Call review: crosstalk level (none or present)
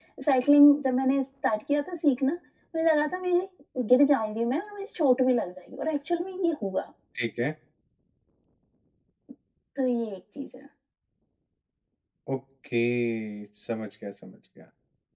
none